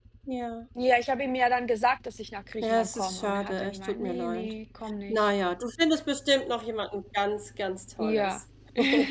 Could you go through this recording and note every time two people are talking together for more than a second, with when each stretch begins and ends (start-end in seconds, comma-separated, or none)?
2.6-4.5